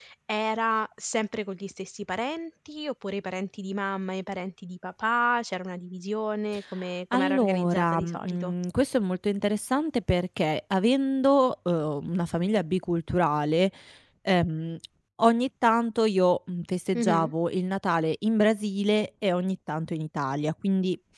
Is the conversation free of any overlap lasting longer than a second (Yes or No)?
No